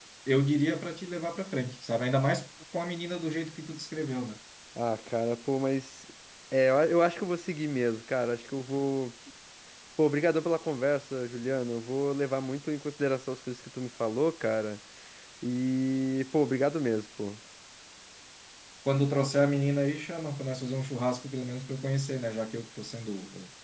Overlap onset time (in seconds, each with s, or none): none